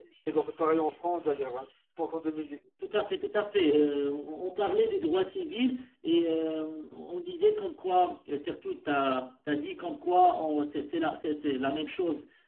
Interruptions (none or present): none